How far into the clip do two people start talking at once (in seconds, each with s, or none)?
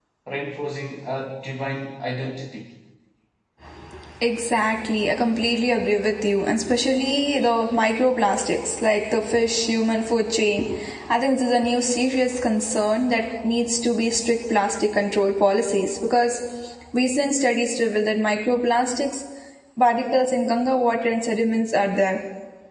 none